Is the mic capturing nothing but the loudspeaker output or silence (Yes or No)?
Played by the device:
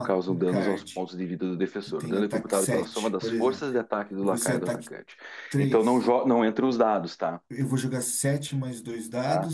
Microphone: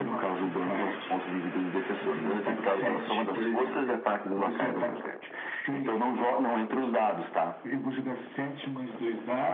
Yes